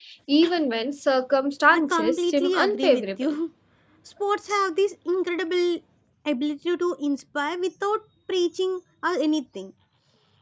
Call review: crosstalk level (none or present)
present